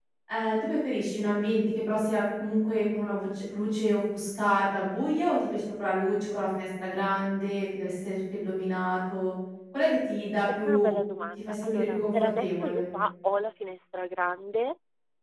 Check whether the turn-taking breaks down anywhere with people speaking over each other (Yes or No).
Yes